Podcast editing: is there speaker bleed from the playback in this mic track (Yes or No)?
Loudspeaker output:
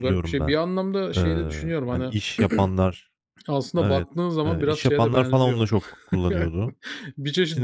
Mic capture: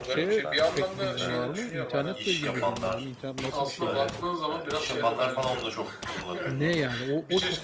Yes